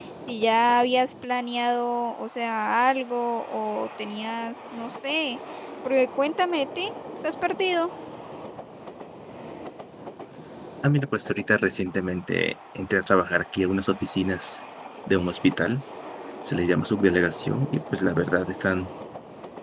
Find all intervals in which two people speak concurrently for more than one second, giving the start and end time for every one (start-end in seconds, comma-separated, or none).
none